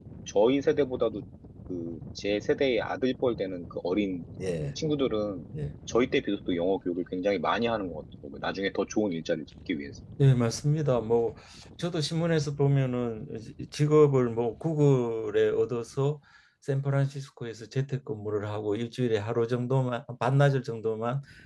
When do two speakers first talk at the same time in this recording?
none

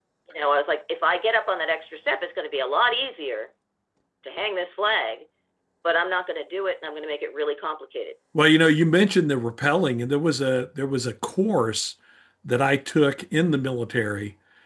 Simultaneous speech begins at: none

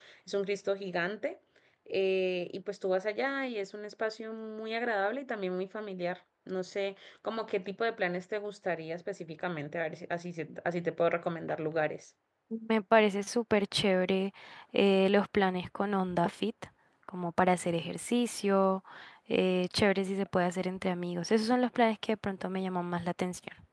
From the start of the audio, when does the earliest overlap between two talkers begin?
none

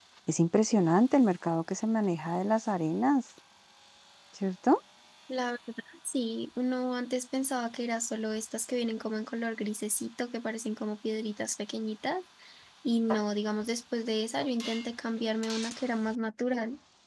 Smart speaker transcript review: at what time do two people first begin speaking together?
none

